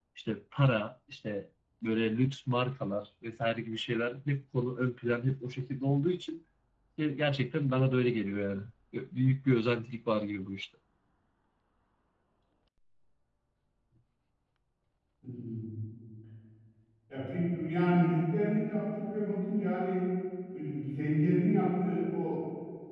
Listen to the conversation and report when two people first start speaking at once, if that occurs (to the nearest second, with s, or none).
none